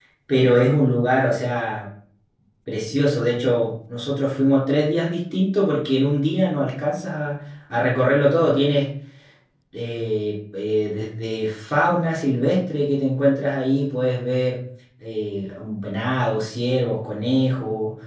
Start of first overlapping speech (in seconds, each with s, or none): none